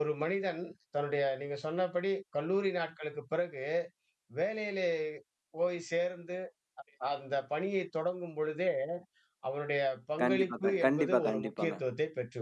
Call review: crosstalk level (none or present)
present